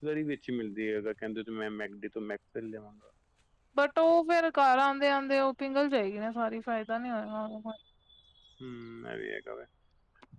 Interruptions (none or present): none